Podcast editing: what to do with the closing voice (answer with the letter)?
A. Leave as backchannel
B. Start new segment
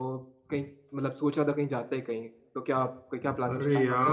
B